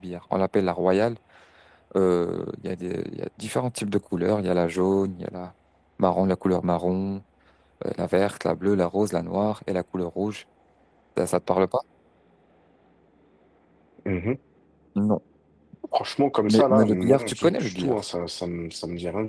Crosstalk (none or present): present